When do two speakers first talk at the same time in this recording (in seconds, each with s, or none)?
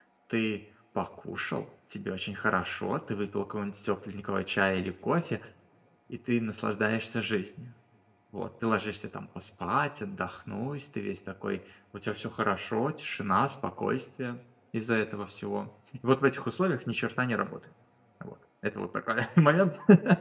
none